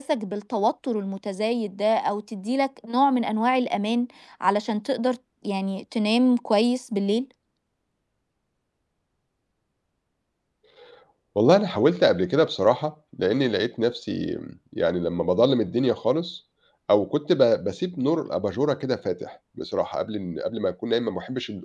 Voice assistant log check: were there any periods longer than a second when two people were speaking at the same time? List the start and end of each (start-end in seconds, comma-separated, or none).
none